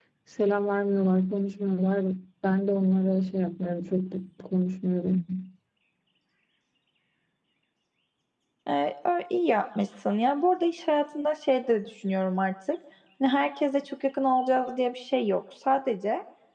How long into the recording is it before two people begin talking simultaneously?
none

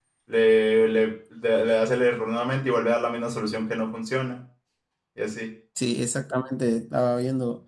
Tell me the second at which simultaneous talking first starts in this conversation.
none

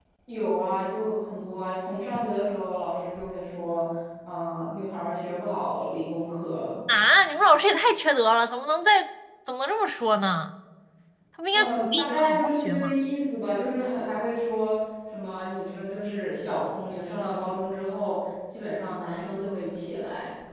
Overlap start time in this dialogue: 11.5 s

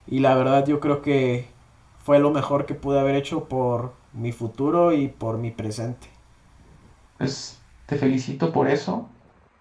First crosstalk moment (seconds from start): none

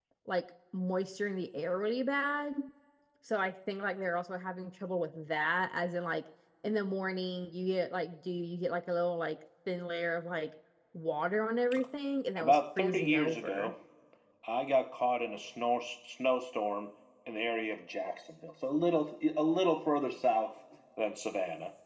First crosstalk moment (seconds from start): 12.4 s

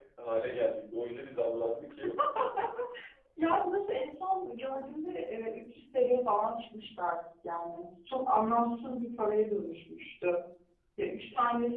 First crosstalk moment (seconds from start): none

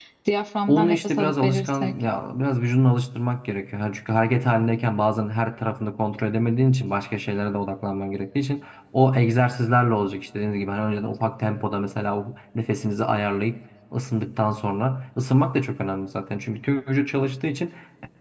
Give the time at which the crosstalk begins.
0.7 s

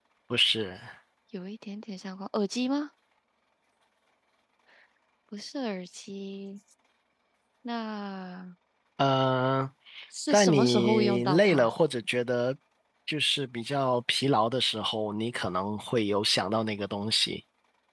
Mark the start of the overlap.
10.3 s

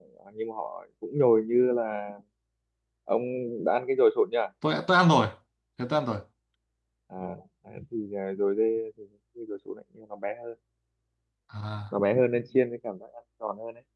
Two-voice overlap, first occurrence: none

